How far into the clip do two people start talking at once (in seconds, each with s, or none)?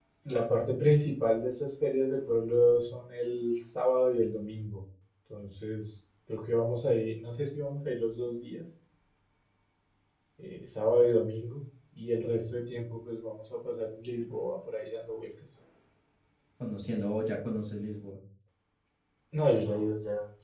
none